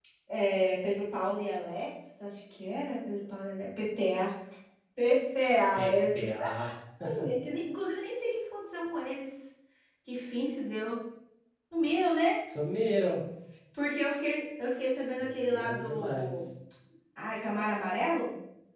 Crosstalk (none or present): present